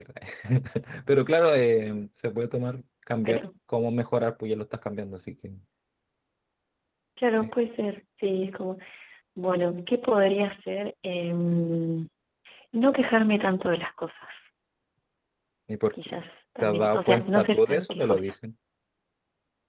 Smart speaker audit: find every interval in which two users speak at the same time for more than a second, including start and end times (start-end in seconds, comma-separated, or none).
16.6-18.3